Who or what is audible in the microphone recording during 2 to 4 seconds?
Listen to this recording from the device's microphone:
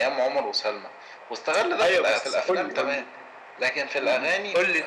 echo only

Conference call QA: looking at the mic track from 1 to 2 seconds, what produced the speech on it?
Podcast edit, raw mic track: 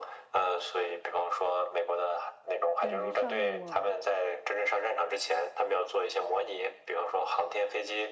echo only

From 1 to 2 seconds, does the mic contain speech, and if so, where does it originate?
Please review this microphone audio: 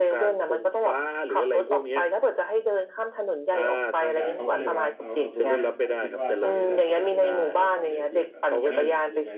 echo only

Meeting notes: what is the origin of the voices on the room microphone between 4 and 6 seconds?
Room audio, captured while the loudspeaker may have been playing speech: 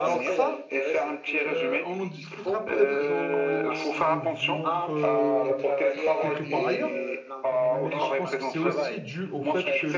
both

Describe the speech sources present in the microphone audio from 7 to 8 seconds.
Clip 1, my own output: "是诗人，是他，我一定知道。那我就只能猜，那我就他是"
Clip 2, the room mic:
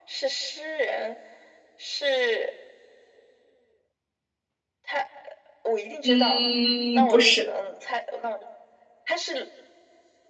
both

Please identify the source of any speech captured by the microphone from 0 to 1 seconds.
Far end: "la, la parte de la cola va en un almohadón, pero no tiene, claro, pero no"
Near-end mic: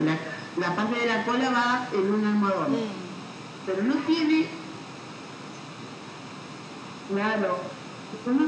echo only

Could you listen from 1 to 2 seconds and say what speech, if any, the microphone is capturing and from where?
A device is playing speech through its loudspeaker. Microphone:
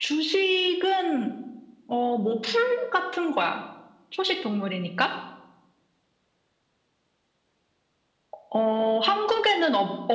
echo only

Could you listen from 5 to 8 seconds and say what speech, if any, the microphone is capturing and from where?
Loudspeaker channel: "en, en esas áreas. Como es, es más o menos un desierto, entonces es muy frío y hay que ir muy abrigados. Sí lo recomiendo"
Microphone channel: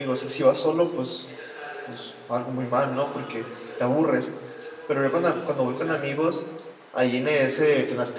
both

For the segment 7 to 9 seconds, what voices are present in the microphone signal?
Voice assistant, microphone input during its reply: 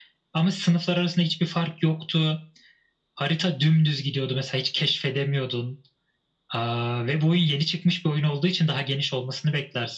echo only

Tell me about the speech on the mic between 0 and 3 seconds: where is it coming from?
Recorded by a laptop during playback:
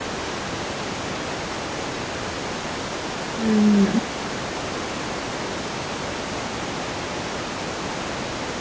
neither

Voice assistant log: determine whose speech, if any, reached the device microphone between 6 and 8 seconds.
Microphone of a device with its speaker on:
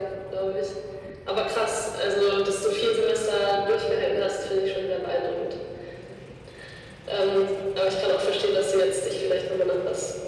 echo only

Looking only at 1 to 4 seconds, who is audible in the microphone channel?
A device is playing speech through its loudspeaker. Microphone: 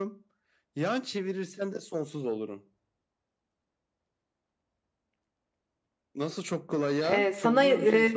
echo only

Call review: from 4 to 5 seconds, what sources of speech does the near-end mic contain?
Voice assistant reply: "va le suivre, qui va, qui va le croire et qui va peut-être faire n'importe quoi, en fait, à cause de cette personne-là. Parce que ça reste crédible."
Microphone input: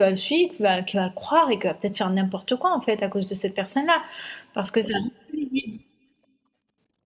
echo only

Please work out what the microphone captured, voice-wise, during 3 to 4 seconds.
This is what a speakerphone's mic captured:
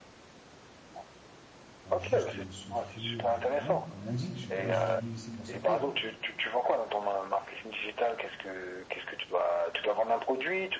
both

